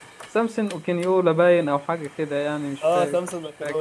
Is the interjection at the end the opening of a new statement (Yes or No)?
Yes